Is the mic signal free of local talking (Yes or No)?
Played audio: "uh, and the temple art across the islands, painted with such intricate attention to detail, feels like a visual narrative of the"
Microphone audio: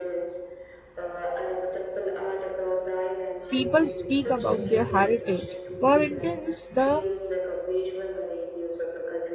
No